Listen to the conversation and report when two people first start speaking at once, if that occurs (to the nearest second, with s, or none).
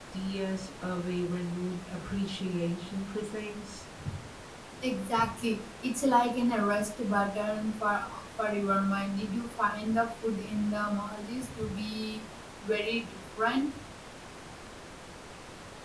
none